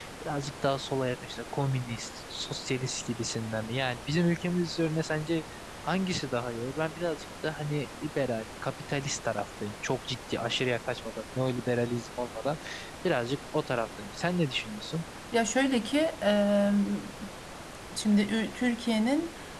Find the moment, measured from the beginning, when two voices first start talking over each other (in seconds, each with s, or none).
none